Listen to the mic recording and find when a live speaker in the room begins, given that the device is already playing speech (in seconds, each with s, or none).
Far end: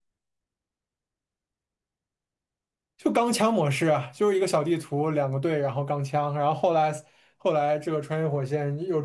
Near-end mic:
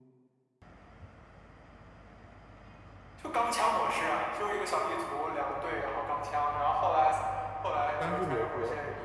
8.0 s